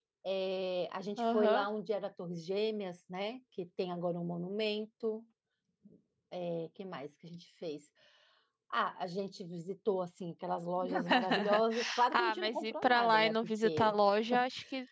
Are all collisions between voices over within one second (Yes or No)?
No